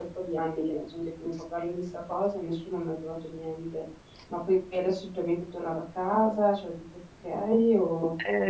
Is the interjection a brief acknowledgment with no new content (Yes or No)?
No